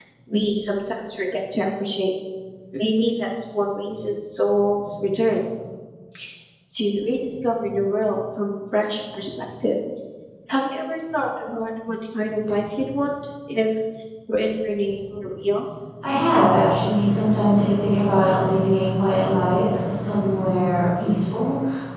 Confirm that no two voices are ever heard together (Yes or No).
Yes